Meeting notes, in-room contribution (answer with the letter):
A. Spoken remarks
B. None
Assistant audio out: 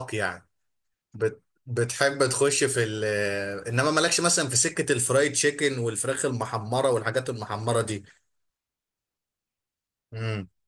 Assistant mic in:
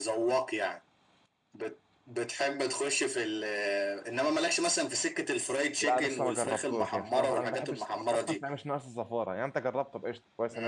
A